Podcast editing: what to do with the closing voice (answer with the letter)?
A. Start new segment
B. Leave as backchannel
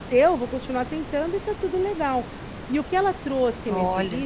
B